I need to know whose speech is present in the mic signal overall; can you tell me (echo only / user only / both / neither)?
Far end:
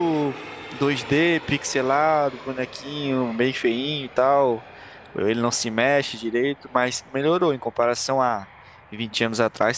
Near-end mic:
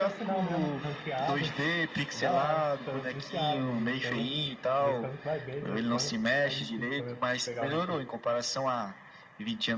both